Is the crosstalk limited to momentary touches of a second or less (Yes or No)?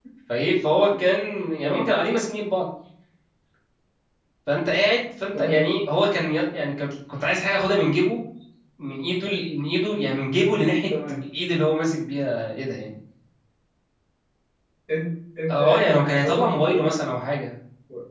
No